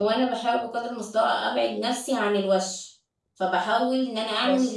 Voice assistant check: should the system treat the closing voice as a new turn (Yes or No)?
No